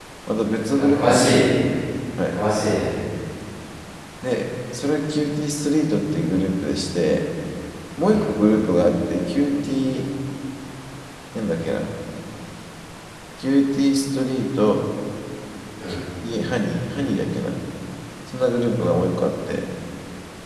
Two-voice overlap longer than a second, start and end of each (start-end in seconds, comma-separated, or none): none